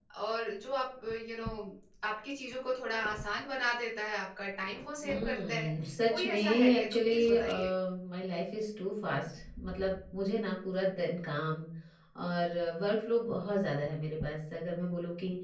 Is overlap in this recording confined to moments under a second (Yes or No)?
No